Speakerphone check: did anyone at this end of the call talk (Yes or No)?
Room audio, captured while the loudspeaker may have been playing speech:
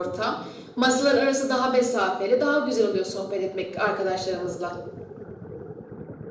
No